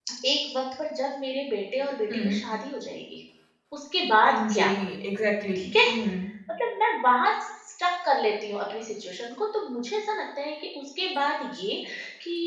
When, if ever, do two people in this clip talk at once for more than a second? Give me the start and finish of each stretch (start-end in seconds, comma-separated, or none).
none